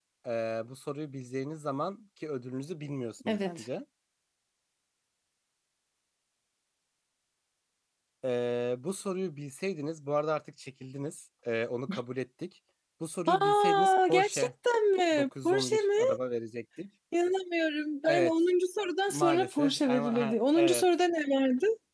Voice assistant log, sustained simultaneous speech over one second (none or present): present